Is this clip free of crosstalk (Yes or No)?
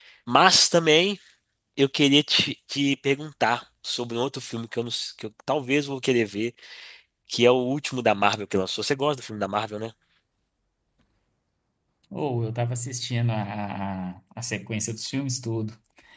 Yes